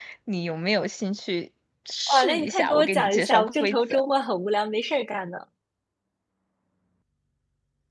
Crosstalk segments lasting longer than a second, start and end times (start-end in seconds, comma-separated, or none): 2.1-4.0